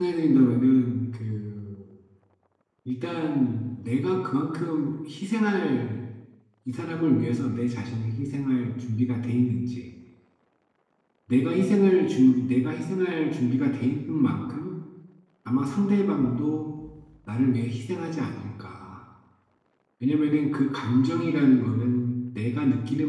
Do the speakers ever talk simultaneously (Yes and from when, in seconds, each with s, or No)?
No